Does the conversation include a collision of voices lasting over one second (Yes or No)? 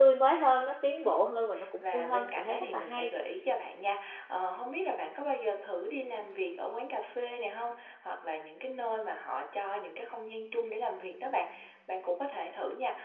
Yes